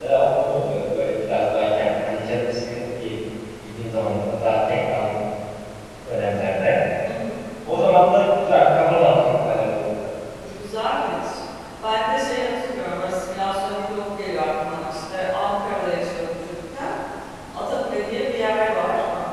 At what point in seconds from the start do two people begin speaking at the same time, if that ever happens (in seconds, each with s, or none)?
none